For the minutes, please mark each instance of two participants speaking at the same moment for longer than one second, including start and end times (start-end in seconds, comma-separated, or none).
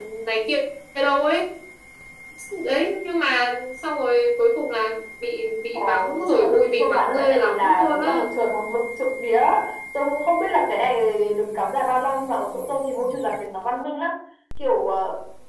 5.7-8.2